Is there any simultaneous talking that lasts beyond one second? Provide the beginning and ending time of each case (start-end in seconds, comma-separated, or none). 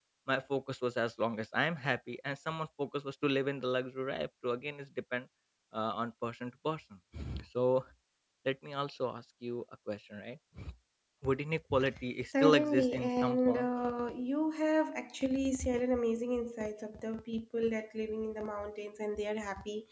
12.4-13.7